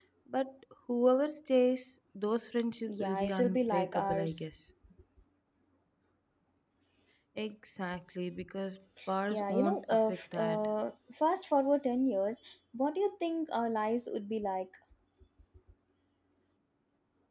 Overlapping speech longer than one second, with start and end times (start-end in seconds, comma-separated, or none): 2.9-4.5, 9.3-10.7